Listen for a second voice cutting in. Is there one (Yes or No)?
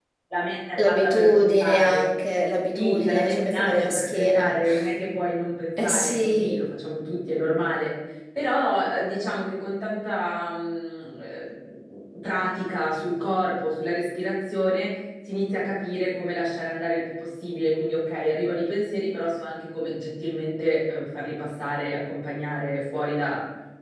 Yes